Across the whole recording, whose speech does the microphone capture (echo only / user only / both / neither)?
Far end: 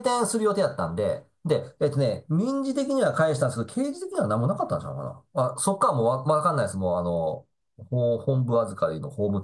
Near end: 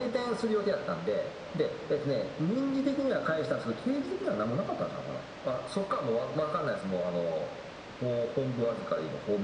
echo only